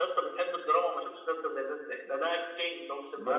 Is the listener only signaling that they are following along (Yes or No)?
No